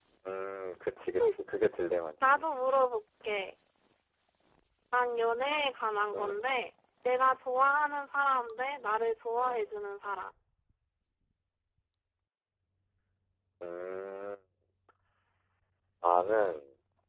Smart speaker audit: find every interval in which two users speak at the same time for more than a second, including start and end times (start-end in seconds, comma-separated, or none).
none